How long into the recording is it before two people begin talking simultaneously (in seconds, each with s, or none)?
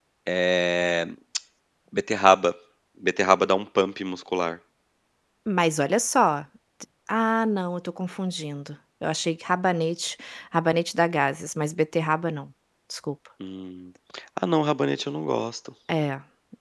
none